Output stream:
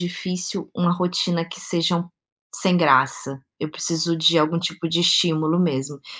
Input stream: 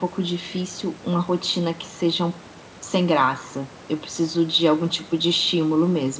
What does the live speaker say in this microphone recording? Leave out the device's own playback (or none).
none